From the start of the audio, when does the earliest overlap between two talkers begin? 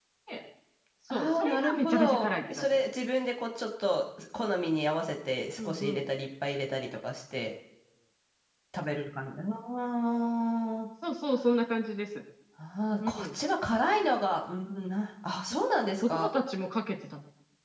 1 s

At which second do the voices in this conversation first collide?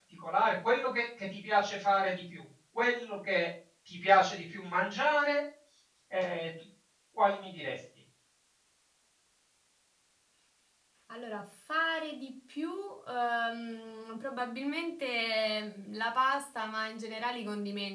none

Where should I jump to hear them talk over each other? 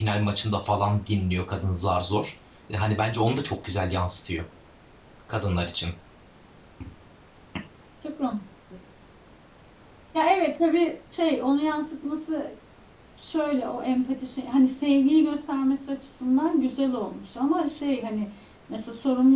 none

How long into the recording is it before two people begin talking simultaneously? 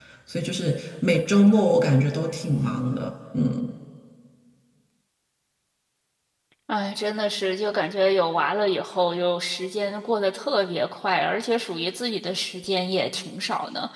none

